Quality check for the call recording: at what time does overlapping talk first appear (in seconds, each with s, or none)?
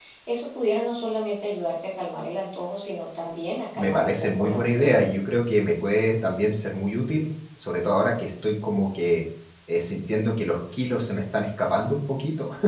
3.8 s